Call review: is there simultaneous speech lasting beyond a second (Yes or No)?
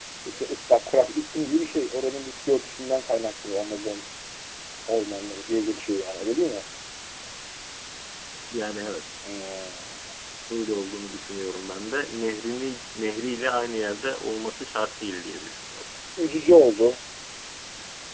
No